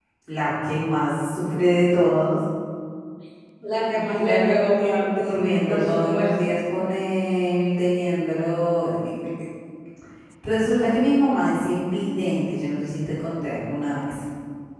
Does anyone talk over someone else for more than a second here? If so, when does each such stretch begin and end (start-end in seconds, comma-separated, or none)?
3.9-6.3